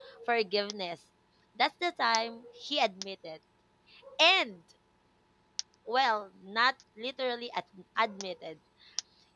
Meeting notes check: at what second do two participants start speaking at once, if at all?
none

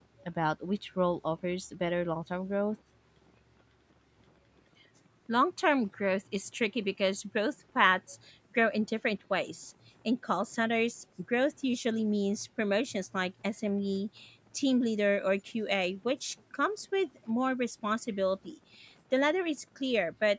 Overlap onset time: none

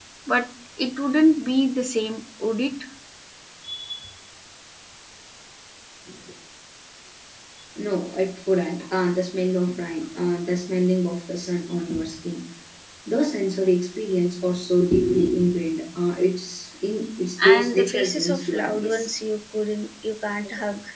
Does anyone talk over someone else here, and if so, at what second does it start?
17.4 s

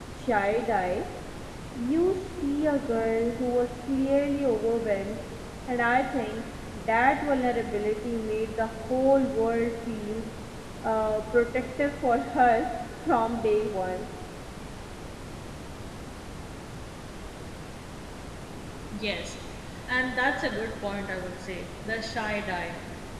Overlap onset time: none

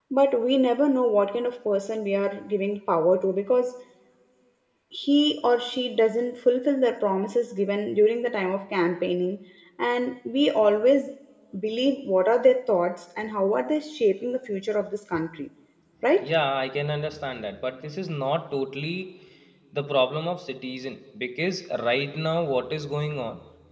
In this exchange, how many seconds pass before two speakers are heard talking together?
none

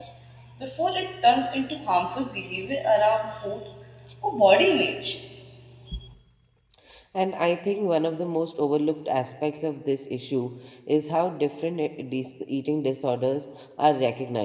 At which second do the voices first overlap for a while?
none

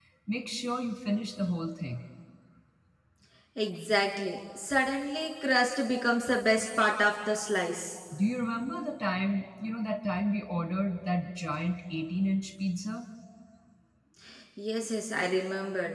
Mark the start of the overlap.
none

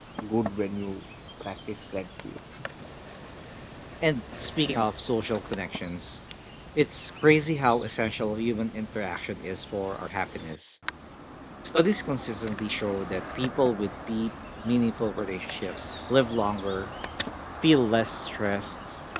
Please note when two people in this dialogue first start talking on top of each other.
none

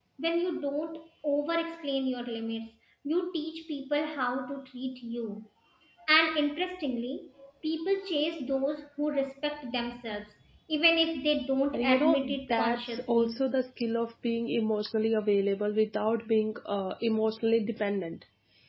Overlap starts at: 11.7 s

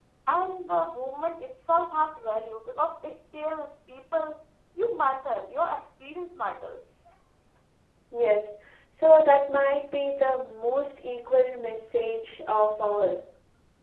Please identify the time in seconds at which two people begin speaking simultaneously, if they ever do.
none

